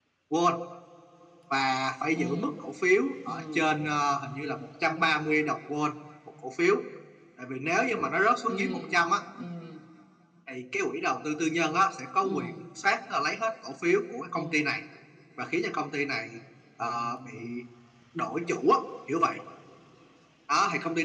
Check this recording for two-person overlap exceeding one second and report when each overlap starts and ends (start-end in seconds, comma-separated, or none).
none